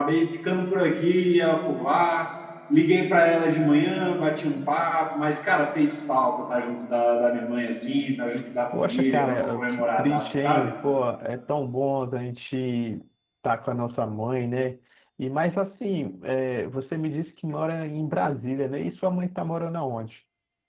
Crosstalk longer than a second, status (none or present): present